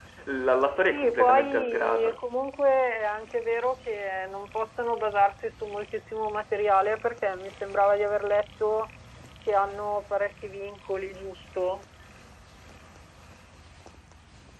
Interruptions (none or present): present